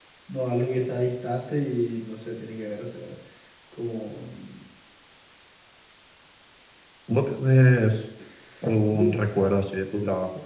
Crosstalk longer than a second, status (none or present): none